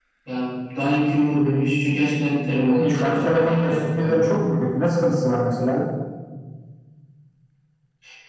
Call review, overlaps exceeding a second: present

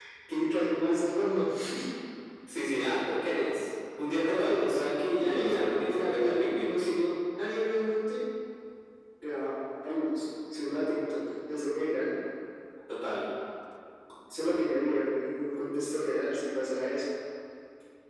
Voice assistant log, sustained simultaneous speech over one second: present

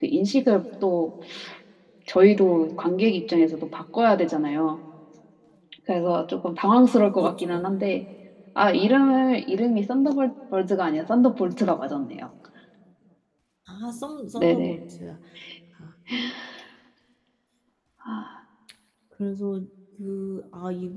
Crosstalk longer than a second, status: none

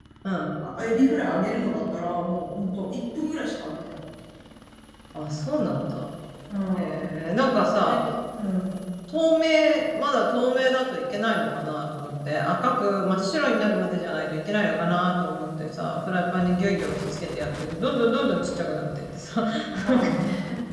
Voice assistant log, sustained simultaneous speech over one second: none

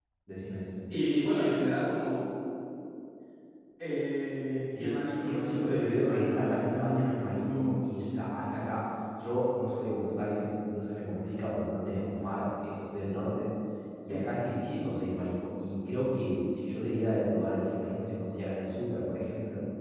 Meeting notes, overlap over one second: present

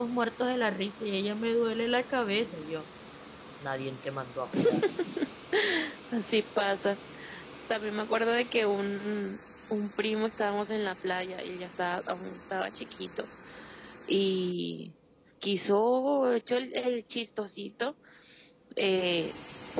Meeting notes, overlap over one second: none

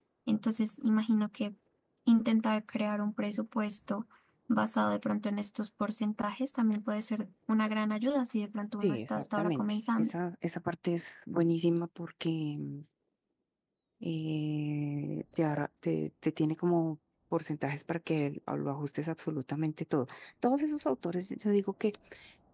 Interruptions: present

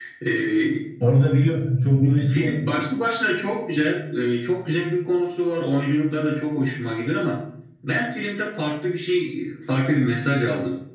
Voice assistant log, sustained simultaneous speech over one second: none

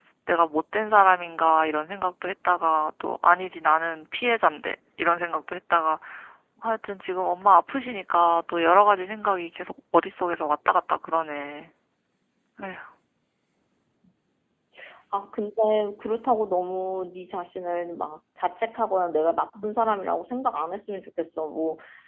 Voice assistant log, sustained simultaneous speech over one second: none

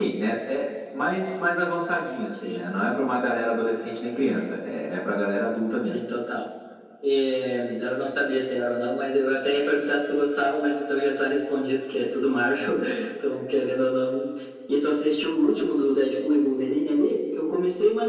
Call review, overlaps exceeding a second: none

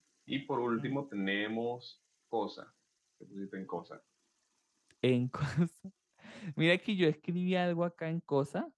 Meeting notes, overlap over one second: none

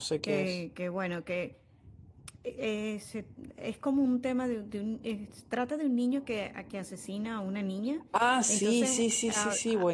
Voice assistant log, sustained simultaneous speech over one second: present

